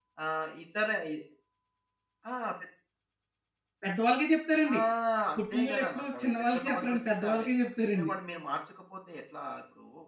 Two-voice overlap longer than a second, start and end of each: 5.4-7.5

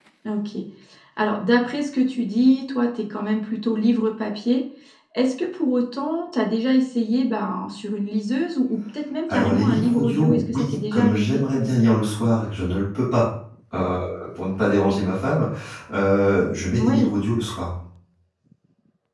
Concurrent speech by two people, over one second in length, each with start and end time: 9.3-11.4

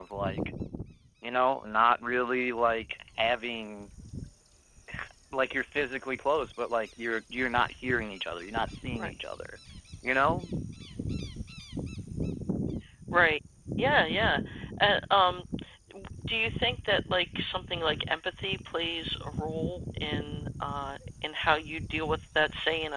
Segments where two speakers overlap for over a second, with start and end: none

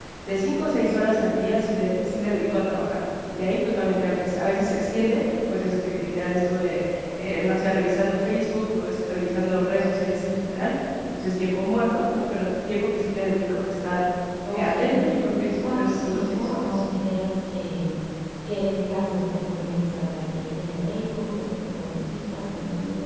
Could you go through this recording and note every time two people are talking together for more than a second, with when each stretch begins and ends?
15.4-16.8

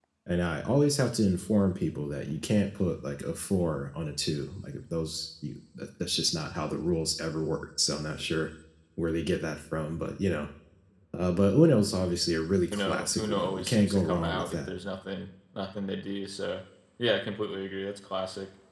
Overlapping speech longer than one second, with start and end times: 12.7-14.7

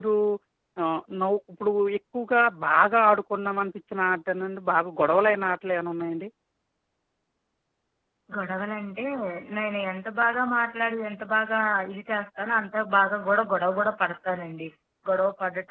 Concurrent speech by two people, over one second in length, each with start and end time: none

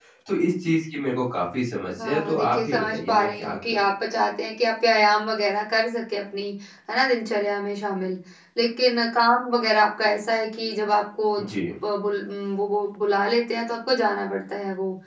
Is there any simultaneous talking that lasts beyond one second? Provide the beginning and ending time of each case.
2.0-3.8

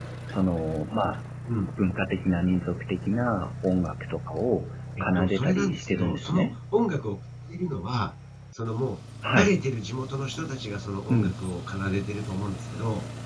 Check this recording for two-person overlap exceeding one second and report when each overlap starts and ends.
5.0-6.5

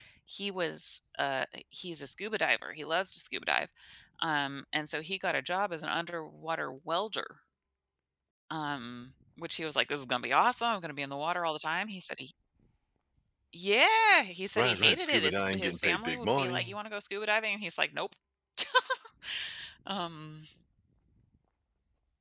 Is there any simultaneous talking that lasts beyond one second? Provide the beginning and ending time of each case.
14.6-16.8

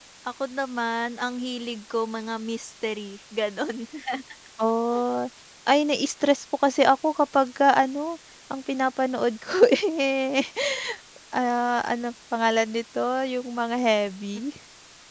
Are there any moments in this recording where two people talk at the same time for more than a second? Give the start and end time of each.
none

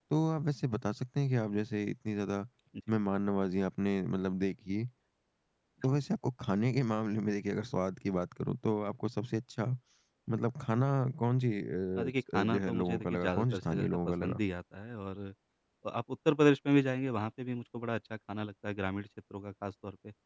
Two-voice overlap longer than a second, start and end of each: 12.0-14.4

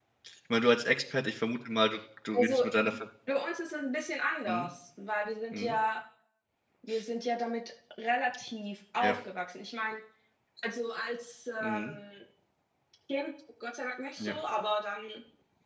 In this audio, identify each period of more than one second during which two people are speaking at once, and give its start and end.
none

